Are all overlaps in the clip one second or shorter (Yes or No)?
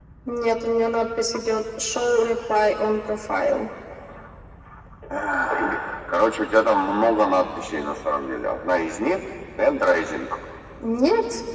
Yes